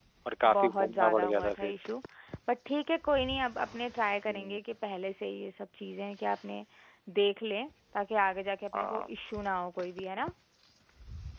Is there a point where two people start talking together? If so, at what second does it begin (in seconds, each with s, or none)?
0.5 s